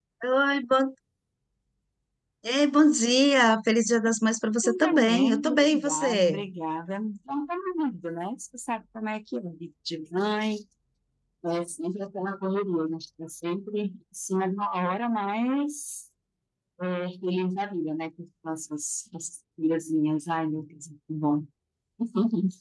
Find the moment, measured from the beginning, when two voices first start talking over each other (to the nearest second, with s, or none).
5 s